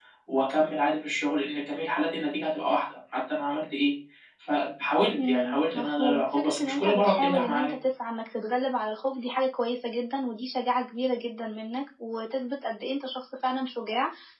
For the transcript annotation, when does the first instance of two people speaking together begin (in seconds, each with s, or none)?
5.3 s